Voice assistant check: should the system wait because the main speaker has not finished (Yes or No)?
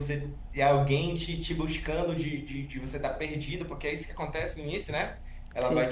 Yes